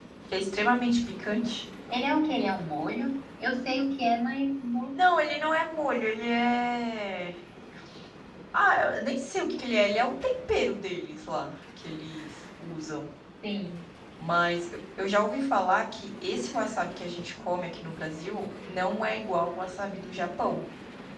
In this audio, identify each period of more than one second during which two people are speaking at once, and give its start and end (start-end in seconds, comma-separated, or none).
none